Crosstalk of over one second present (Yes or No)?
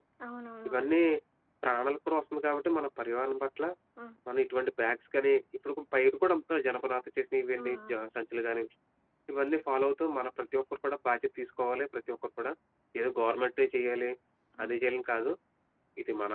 No